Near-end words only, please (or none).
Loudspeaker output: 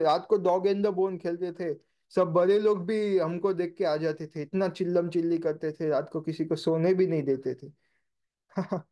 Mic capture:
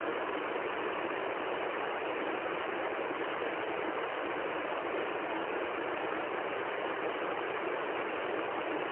none